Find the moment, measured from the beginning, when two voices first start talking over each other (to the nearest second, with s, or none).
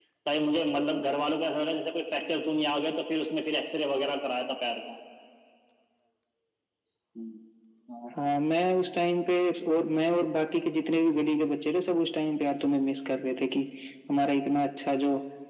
none